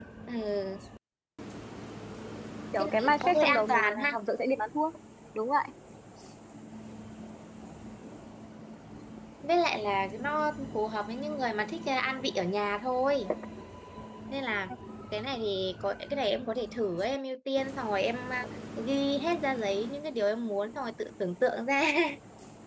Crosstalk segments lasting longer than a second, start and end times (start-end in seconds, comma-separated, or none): 2.8-4.1